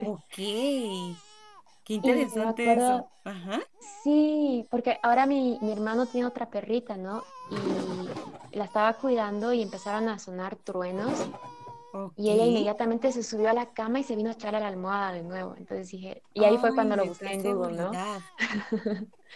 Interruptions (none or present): present